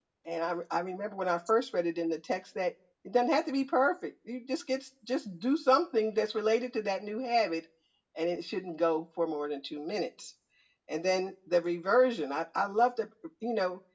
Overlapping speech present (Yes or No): No